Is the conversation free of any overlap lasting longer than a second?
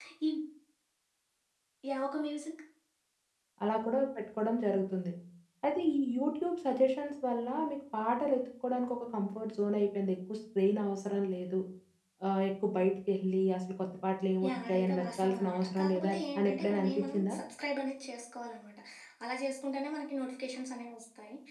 No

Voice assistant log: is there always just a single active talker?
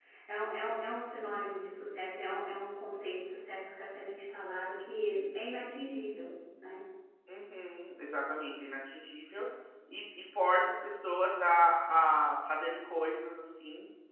Yes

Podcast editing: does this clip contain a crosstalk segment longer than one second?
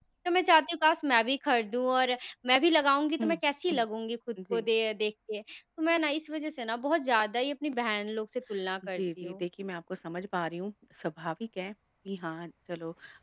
No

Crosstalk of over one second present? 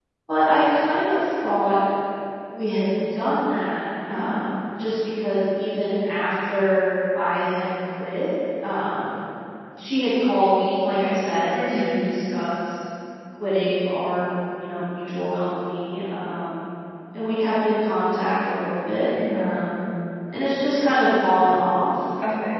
No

